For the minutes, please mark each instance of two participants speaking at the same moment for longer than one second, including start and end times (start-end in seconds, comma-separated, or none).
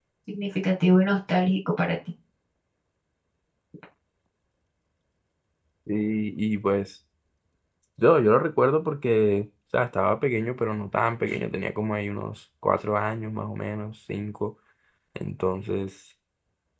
none